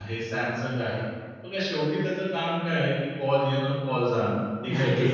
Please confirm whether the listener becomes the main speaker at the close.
No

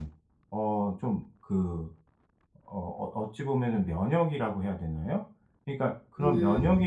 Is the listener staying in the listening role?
Yes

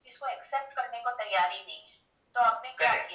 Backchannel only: No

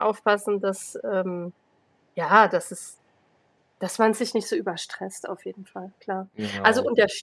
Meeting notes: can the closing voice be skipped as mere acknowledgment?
Yes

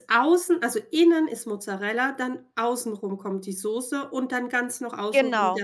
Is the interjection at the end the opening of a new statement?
No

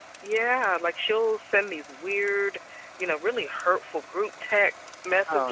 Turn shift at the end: No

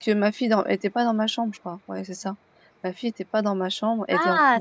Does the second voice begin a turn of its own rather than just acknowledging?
Yes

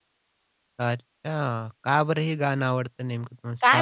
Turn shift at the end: Yes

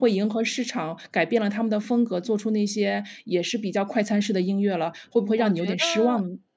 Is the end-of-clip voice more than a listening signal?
Yes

